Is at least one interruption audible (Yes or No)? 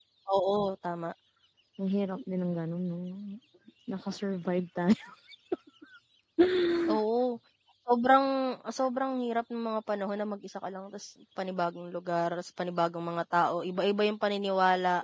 No